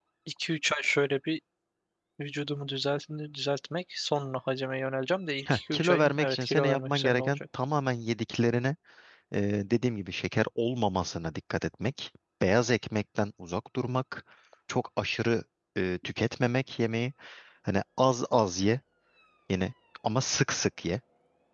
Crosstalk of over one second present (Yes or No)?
Yes